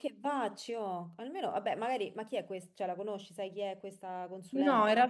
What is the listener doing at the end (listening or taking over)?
taking over